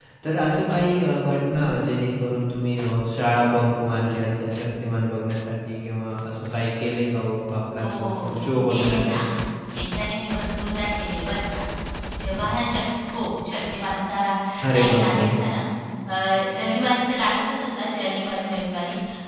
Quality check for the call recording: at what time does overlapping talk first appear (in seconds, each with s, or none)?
7.8 s